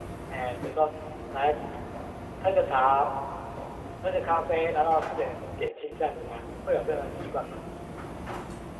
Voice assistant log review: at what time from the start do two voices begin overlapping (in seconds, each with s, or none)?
none